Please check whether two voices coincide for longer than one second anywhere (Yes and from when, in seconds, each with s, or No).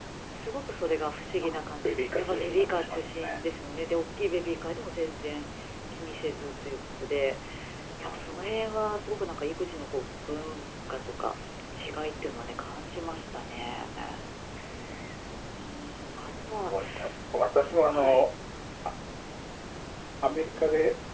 Yes, from 1.4 s